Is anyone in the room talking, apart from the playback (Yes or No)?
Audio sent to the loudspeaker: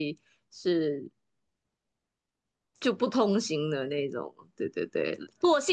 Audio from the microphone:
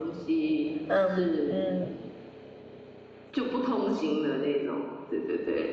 Yes